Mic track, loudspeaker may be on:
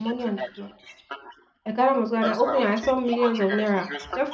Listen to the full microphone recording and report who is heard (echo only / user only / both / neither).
both